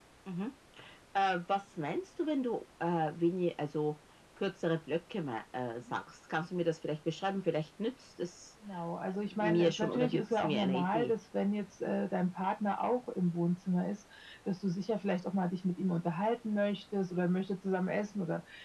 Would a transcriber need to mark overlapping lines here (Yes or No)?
Yes